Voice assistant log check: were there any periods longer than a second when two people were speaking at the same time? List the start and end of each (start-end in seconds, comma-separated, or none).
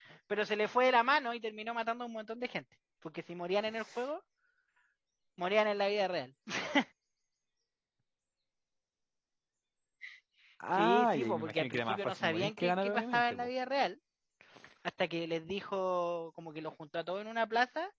10.7-13.5